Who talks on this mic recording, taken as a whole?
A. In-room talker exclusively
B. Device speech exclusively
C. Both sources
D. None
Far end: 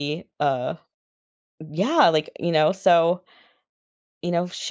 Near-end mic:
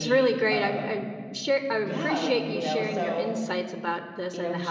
C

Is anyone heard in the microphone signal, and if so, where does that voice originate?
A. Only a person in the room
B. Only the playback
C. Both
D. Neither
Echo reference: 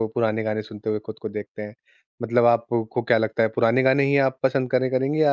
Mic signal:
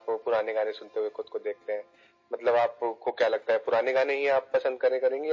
B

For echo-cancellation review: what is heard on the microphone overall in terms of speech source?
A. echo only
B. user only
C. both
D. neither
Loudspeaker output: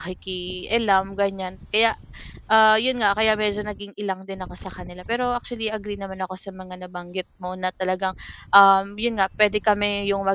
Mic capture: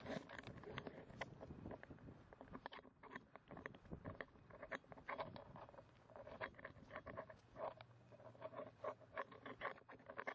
D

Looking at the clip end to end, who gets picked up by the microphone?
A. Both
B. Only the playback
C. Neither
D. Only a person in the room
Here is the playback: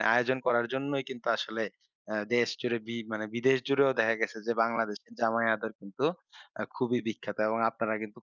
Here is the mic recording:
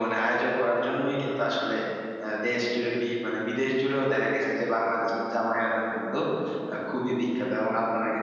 B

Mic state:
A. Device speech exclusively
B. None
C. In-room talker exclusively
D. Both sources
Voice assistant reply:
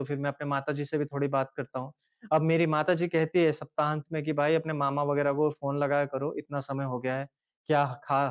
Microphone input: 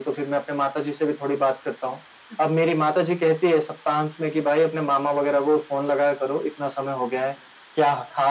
A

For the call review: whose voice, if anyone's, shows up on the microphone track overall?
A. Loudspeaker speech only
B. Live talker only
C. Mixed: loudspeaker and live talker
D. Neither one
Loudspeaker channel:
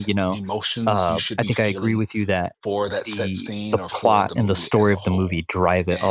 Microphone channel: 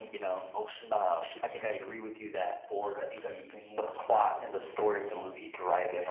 A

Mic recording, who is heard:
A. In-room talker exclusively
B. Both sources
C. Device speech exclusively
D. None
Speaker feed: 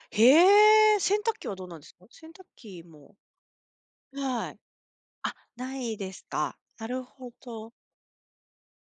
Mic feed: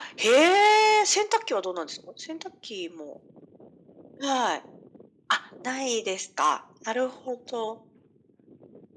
C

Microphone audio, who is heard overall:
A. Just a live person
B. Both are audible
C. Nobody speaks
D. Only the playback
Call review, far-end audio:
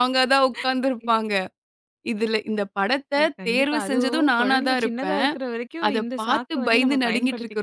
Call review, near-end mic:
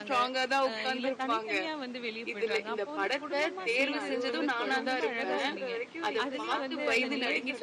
B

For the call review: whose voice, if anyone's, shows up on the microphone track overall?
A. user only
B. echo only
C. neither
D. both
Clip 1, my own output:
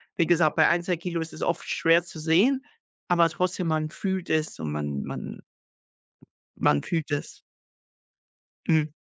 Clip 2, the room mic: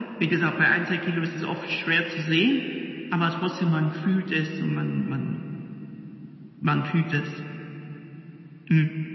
B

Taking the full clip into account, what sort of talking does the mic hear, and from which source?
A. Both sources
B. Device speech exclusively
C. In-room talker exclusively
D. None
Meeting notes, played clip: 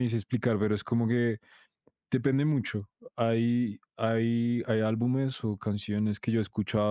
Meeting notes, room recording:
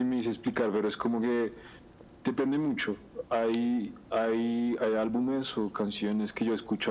B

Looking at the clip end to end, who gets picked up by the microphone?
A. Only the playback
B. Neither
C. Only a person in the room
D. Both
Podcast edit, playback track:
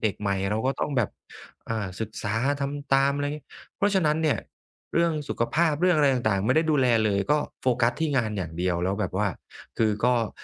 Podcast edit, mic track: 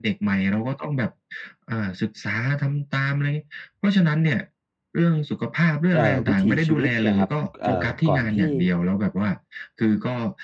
D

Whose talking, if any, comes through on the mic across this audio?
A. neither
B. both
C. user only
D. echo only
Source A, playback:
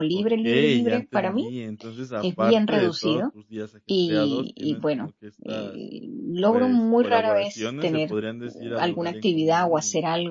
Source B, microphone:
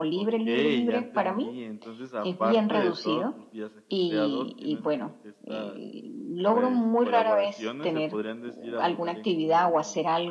D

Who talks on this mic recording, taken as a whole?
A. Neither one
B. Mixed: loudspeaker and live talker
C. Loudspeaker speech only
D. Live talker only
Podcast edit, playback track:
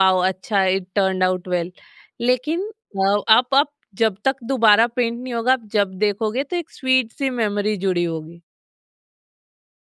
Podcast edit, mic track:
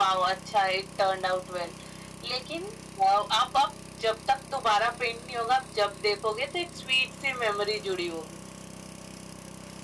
C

